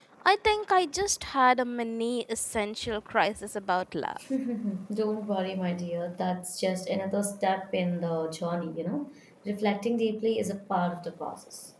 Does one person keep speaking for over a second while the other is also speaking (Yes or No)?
No